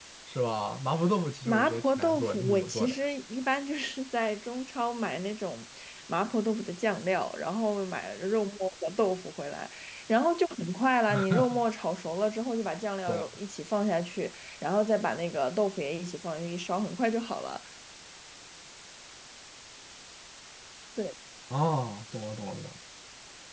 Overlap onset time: 1.4 s

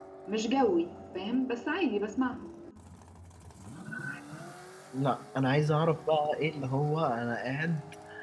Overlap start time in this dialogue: none

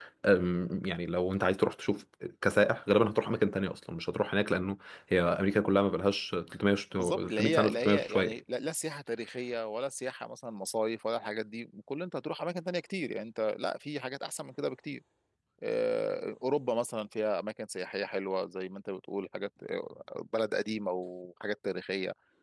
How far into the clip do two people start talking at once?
6.9 s

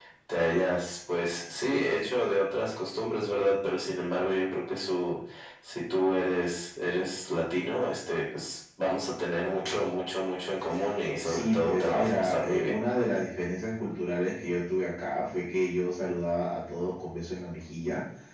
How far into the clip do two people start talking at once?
11.2 s

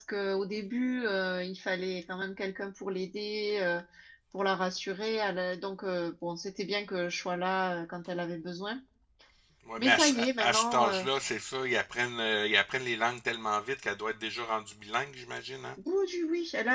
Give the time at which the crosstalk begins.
9.8 s

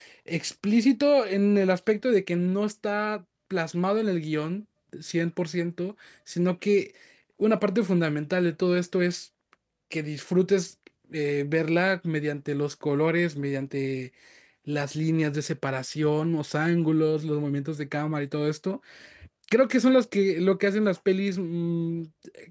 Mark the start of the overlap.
none

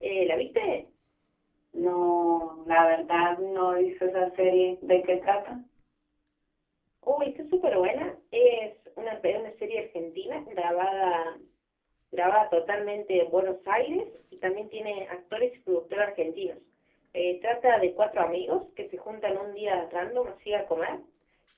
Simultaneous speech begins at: none

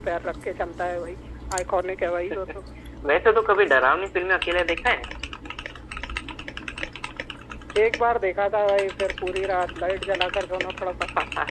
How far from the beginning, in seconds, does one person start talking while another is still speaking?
none

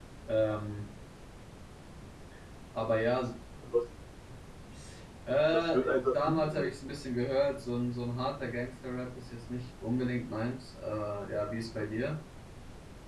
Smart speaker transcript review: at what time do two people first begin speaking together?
5.5 s

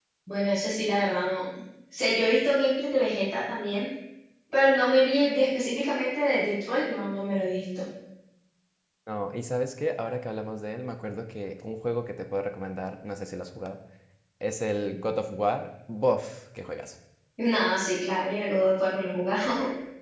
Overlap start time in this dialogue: none

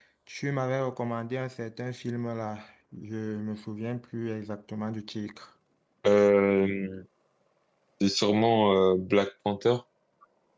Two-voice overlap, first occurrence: none

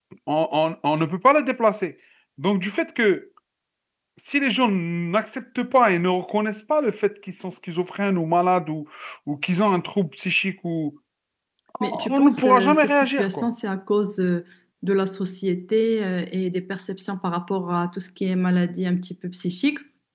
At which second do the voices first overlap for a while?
11.8 s

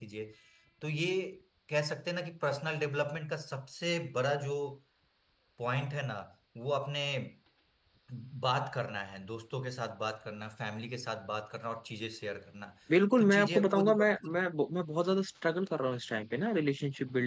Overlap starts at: 13.2 s

